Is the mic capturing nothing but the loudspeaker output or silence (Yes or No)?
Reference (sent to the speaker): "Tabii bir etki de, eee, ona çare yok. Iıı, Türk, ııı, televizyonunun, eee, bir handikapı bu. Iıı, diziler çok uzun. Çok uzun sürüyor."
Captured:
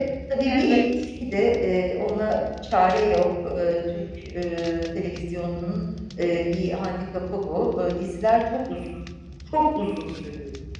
No